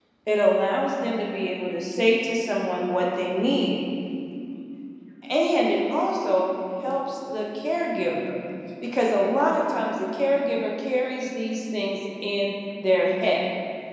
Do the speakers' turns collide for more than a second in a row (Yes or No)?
No